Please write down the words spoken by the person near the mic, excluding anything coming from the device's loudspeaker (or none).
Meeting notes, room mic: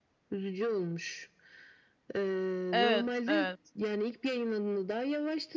Evet, evet.